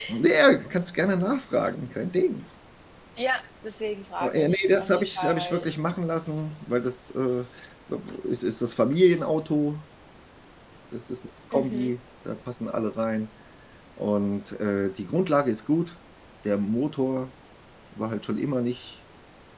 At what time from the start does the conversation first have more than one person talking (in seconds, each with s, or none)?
4.2 s